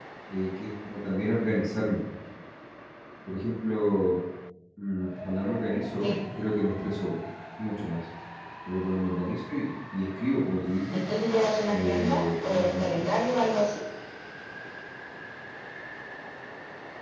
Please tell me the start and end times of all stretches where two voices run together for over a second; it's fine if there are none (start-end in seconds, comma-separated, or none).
11.7-13.0